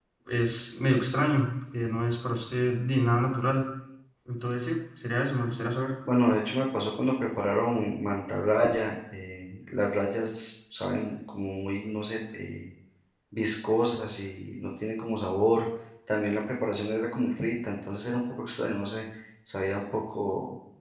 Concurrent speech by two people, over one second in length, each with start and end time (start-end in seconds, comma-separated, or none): none